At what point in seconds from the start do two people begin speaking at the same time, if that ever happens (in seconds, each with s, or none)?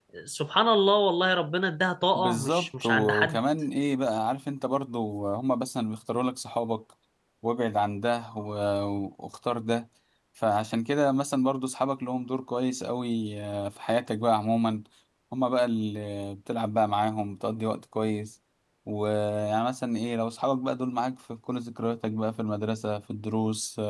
2.2 s